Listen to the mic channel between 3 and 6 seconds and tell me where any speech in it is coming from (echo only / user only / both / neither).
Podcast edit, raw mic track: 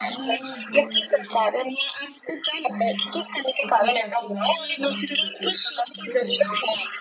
both